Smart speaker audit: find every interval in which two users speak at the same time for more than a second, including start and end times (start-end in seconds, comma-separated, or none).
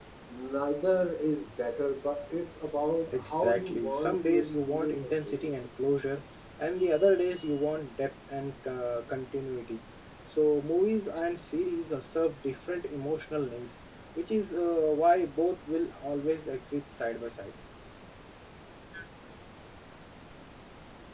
3.1-5.5